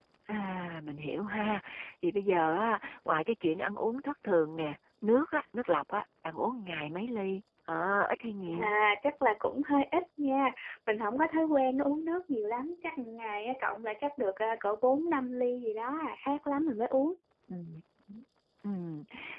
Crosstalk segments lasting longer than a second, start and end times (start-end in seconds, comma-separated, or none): none